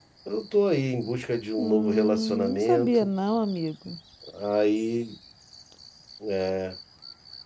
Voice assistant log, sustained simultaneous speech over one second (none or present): present